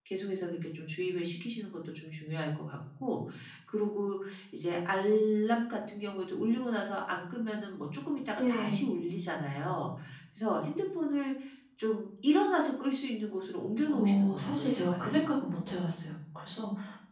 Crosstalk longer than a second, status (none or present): present